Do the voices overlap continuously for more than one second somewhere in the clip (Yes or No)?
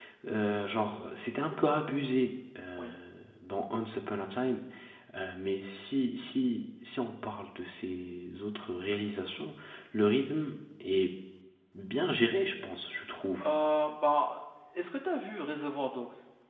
No